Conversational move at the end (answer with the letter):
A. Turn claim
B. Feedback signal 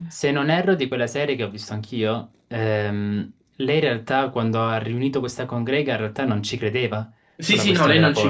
A